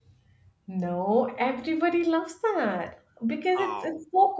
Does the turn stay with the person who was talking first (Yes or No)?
Yes